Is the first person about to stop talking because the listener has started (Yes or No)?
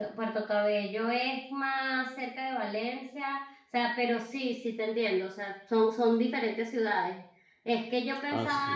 No